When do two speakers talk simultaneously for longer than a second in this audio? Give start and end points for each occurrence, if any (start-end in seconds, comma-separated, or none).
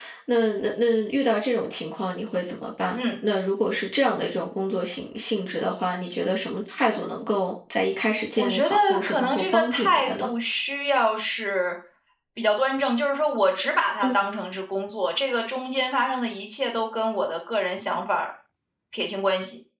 8.4-10.3